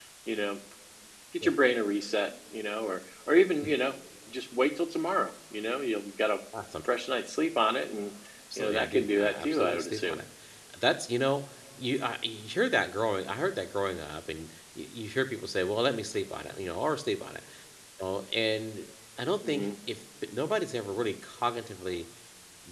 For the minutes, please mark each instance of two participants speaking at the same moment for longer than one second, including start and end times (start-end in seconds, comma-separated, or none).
8.6-10.2